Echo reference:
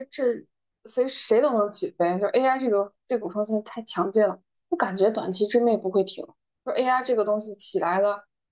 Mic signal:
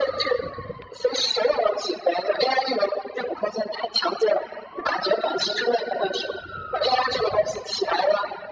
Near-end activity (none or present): none